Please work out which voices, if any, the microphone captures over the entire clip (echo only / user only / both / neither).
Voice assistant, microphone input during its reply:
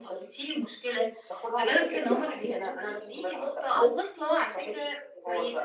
echo only